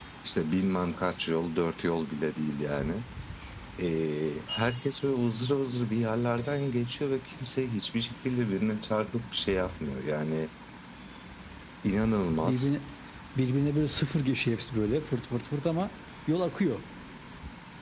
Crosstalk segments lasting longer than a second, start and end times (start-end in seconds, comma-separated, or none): none